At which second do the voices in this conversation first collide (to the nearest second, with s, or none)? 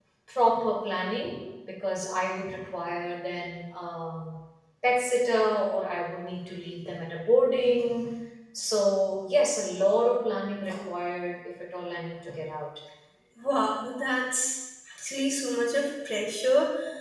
none